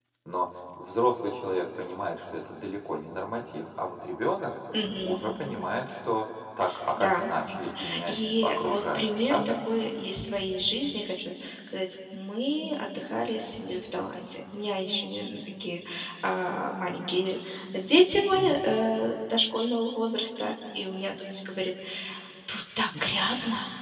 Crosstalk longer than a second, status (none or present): present